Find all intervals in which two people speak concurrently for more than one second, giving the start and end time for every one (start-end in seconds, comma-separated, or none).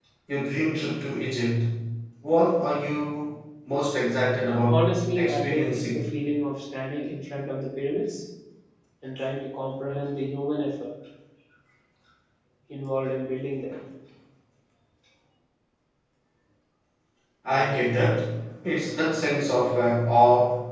4.7-6.0